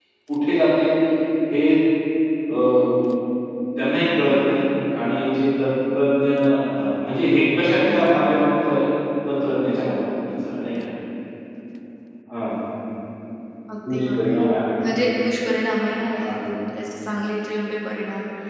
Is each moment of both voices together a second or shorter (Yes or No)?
Yes